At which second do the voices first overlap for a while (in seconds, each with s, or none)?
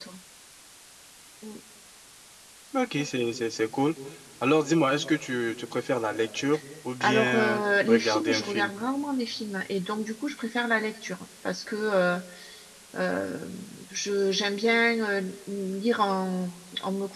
7.0 s